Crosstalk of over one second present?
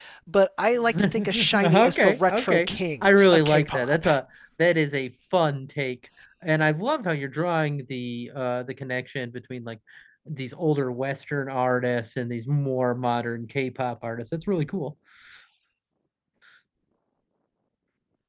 Yes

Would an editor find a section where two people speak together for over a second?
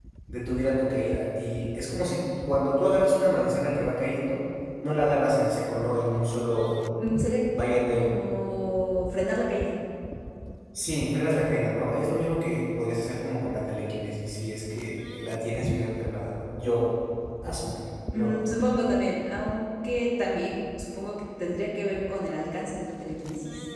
No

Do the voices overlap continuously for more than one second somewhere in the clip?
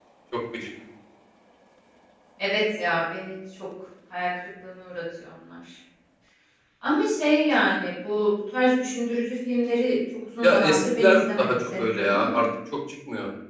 Yes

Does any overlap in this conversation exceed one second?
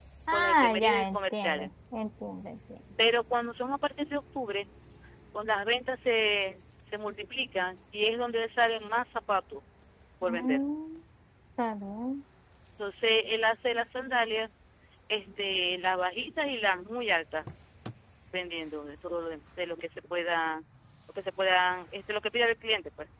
Yes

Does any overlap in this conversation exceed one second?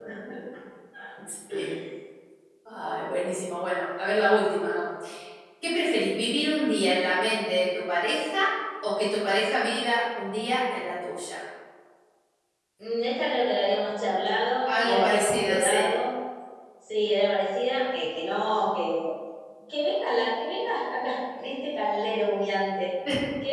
Yes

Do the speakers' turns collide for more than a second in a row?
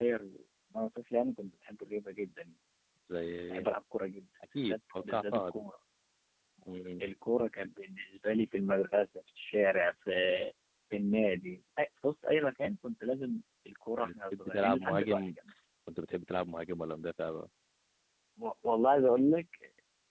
Yes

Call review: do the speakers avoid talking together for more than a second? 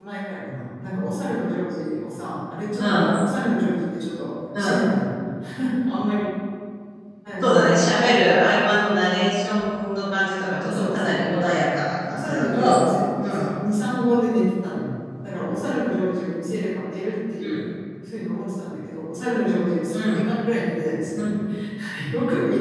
No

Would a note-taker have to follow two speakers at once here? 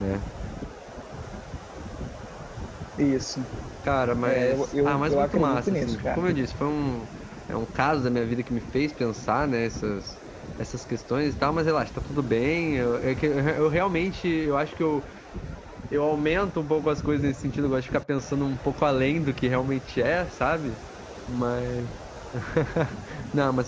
Yes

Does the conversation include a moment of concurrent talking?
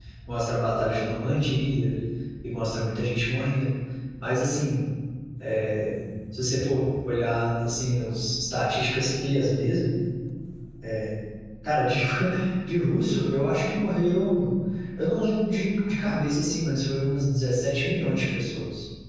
No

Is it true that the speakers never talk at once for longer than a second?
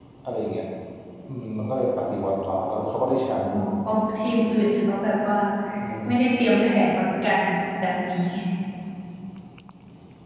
Yes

